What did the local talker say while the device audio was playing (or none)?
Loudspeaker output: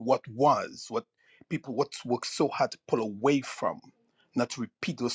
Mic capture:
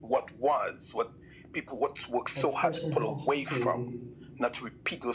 a person have to